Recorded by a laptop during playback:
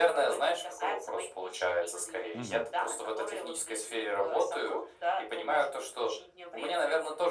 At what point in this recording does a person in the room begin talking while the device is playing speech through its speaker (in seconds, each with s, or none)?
2.3 s